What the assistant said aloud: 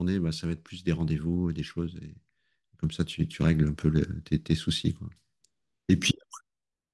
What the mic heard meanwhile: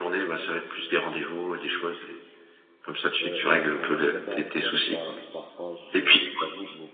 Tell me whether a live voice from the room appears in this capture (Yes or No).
Yes